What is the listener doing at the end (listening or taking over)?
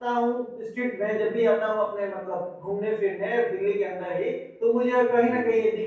listening